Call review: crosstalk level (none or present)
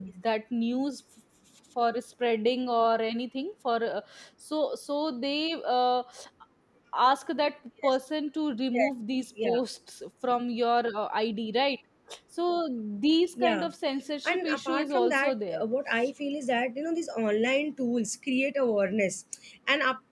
present